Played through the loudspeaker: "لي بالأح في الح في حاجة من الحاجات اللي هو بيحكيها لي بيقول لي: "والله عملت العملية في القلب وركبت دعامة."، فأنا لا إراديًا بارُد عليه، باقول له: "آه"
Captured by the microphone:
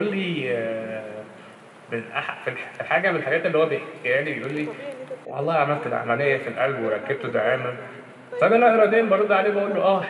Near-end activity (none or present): present